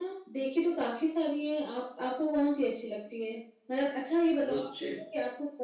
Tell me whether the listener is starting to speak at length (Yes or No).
No